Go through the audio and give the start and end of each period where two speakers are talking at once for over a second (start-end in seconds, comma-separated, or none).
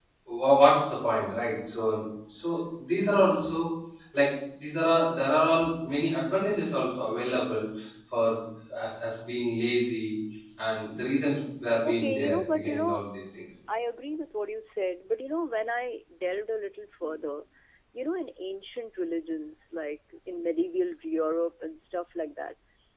11.8-13.1